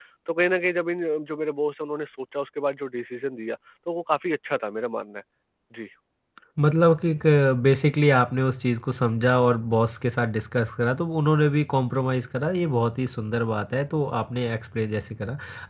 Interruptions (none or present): none